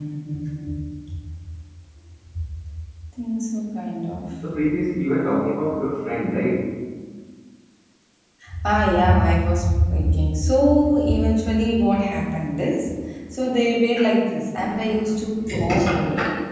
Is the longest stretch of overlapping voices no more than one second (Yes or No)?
Yes